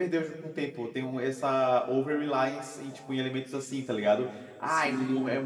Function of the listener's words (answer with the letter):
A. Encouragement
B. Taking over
A